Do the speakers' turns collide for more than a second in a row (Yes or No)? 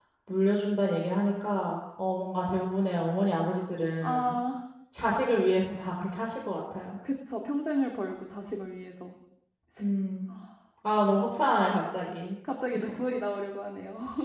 No